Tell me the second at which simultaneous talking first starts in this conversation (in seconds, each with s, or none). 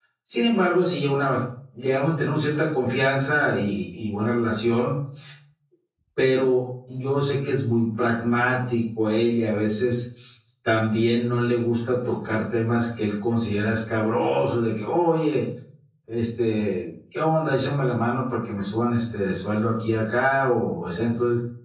none